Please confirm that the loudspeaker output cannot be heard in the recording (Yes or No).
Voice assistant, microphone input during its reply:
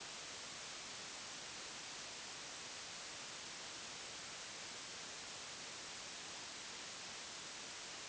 Yes